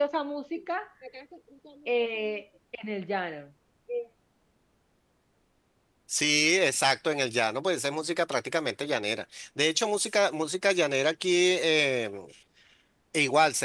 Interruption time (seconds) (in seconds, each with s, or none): none